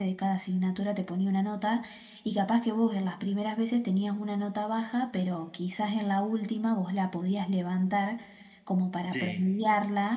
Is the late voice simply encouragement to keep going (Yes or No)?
Yes